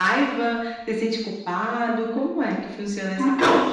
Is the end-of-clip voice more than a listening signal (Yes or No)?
Yes